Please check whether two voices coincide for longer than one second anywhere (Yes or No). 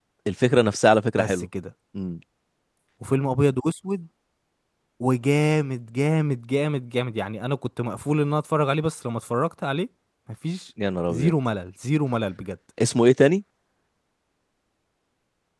No